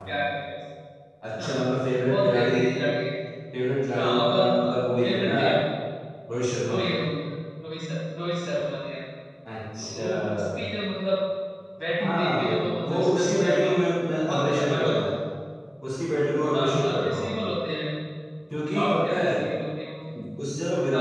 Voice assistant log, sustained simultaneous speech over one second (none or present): present